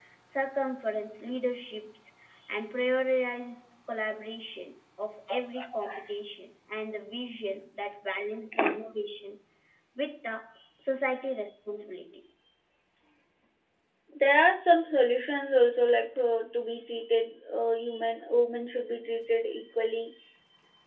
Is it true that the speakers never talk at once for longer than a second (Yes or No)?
Yes